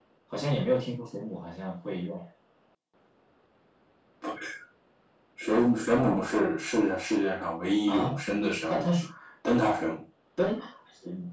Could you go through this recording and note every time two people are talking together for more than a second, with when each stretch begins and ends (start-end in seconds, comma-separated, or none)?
none